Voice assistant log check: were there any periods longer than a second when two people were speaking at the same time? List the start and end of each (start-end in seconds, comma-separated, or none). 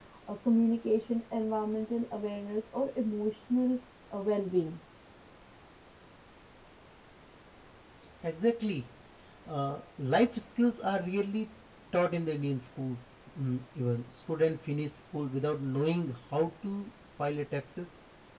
none